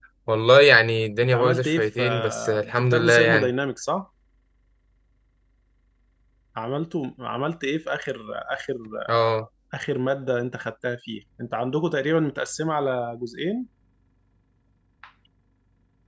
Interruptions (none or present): present